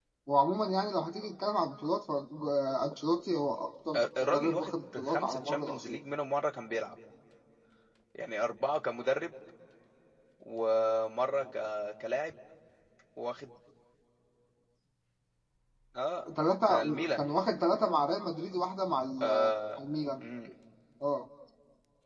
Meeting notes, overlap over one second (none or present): present